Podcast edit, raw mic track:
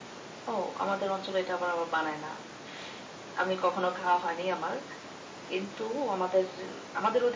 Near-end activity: none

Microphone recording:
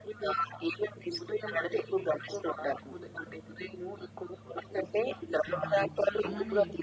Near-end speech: present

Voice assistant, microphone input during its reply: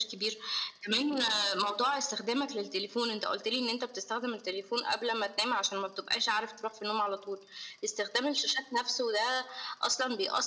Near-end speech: none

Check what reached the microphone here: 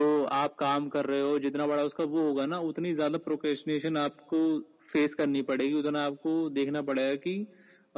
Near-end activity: none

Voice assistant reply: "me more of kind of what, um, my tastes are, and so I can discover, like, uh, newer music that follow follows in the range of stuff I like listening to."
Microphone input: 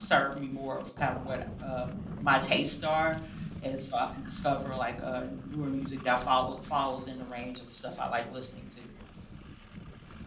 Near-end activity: none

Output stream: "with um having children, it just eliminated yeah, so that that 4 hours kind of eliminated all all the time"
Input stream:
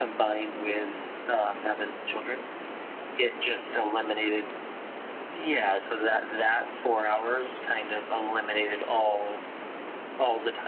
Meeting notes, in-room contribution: none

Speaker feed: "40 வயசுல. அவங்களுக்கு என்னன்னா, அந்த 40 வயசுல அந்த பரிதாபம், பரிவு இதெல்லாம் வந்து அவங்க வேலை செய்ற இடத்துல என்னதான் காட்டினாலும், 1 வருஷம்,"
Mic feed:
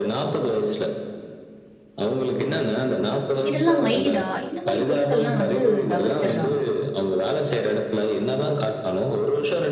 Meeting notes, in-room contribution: present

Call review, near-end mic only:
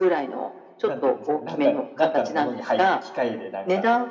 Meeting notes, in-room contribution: present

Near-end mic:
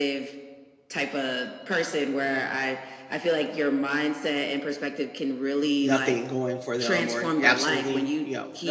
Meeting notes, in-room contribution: present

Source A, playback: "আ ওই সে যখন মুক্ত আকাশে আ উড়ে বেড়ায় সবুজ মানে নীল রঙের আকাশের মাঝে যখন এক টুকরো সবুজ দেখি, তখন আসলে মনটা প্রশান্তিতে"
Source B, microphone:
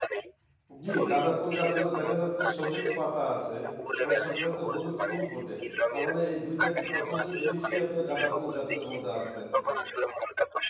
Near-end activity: present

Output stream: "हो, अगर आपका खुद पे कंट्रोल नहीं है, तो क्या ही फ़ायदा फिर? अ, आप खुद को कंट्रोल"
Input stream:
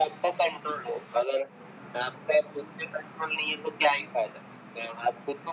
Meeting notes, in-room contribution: none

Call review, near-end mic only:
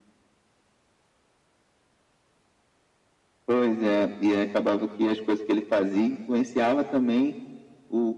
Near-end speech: none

